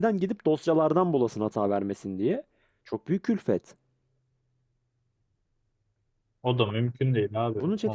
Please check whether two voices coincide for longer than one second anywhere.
No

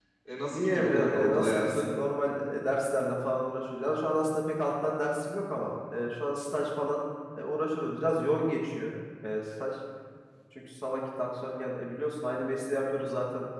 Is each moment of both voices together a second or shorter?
No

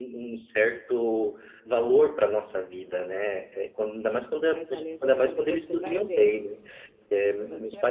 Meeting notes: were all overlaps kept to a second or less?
No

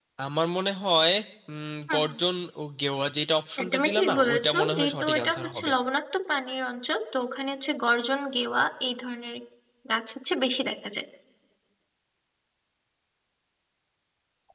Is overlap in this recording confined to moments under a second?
No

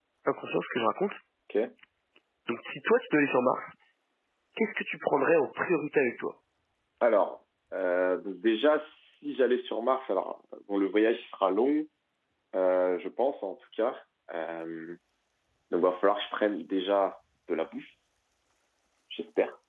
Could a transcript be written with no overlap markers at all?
Yes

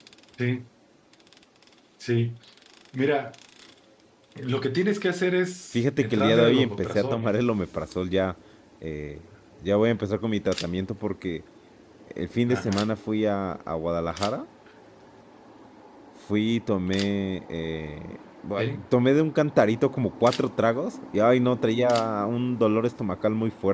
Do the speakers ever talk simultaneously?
Yes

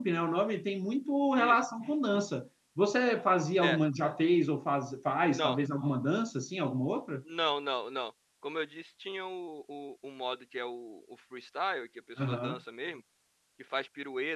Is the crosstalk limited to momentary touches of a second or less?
Yes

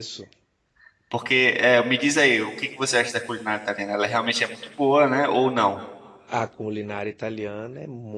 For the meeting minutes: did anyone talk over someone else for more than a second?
No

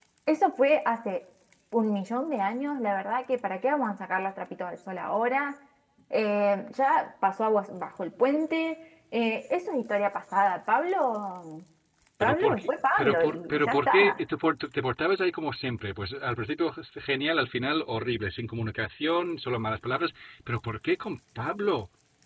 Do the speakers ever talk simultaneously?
Yes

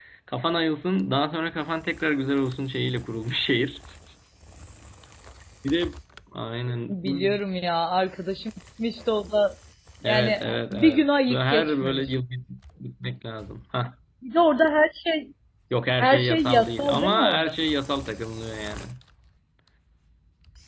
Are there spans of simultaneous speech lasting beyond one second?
Yes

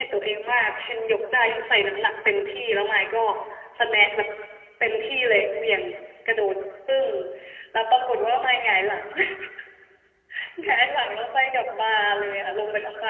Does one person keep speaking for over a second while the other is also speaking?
No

